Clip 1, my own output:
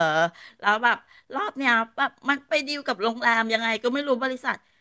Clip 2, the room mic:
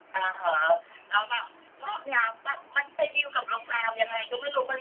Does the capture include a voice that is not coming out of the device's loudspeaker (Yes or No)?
No